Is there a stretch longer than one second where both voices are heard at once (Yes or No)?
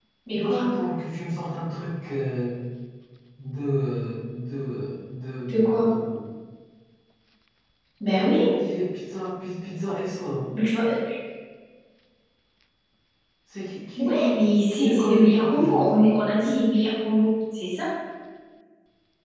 Yes